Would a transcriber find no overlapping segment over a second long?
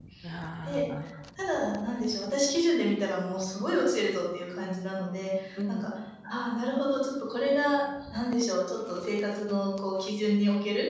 Yes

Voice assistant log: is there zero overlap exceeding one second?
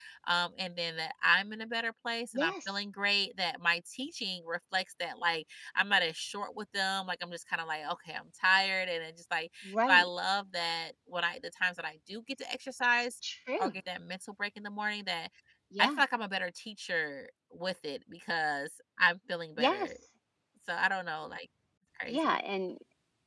Yes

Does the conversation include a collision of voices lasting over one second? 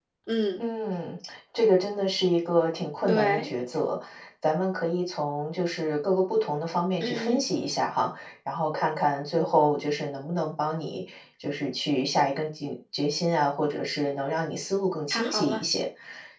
No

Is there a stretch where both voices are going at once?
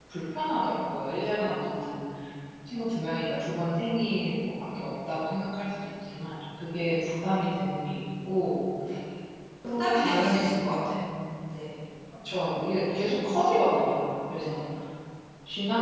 Yes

